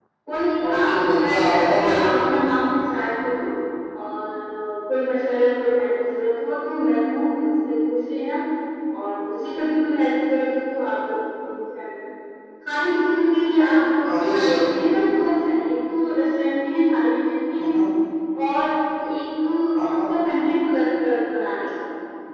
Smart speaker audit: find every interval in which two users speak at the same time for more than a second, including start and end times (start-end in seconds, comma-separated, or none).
0.6-2.0